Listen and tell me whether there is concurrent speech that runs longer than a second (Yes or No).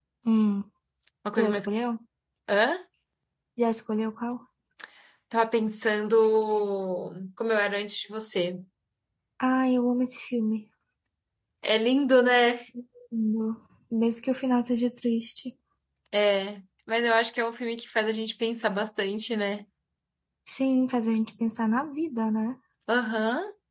No